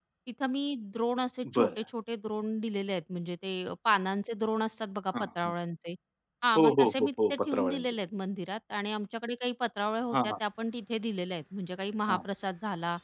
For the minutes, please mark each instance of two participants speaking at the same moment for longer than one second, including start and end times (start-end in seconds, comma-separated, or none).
6.6-7.9